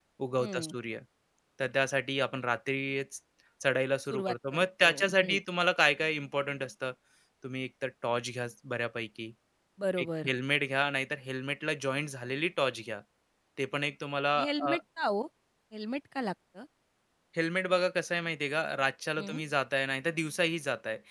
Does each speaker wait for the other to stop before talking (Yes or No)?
No